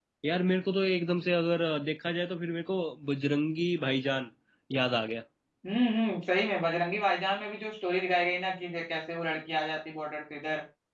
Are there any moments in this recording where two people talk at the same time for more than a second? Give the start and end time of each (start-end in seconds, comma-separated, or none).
none